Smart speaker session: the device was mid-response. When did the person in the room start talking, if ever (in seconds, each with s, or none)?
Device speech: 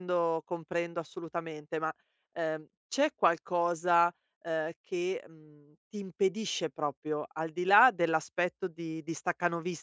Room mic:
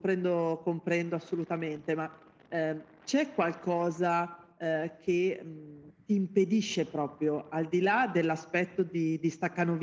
none